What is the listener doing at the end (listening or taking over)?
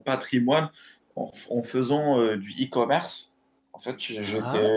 listening